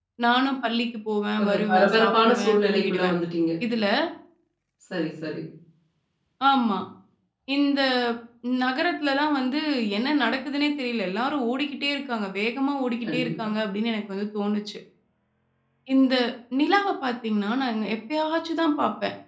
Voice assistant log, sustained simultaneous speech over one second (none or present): present